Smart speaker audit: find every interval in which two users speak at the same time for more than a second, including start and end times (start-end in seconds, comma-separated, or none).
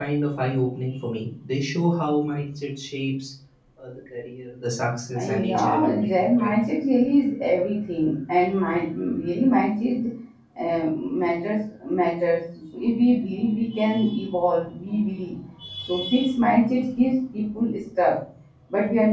5.2-6.5